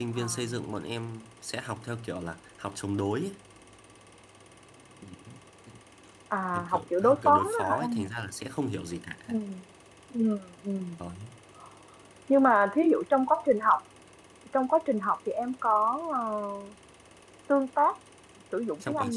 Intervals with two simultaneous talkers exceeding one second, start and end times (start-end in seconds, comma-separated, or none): 6.5-8.1